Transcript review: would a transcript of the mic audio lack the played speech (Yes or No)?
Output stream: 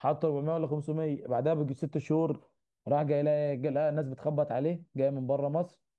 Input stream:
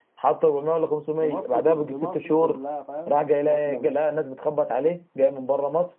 No